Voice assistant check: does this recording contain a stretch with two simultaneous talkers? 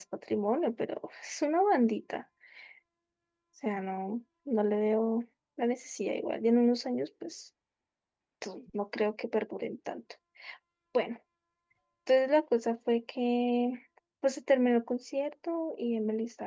No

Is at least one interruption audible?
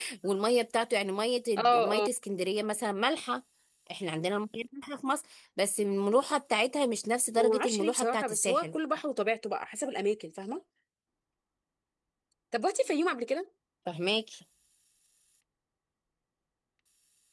Yes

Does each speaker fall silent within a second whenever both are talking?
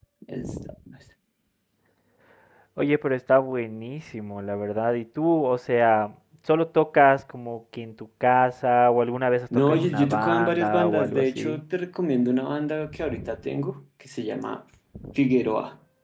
No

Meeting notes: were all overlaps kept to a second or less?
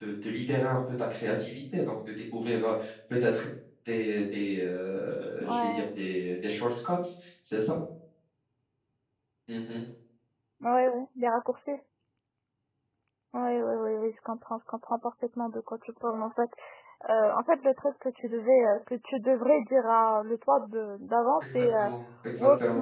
Yes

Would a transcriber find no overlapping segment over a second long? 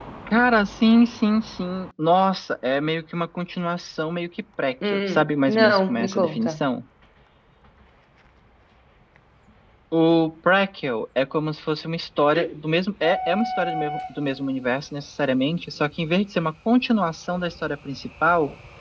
No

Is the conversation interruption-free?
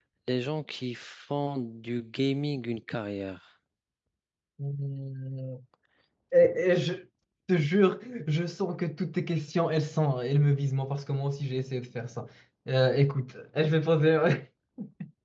Yes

